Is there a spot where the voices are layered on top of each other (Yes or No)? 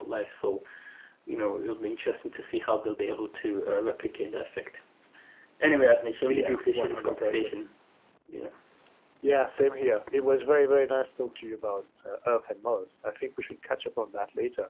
Yes